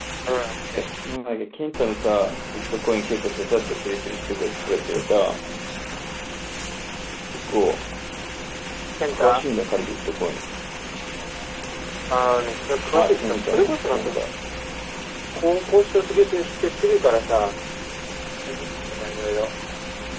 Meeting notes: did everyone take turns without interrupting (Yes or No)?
No